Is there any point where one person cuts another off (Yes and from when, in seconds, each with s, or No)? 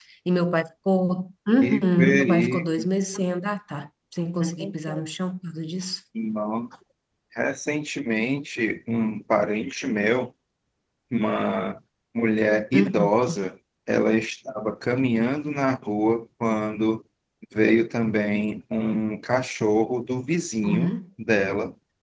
Yes, from 1.6 s